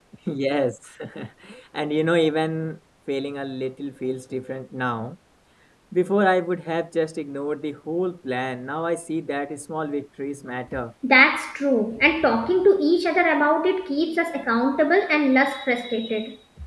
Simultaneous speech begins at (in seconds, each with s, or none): none